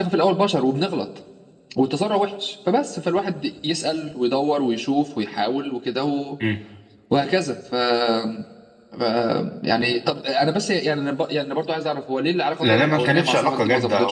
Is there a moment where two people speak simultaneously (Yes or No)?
Yes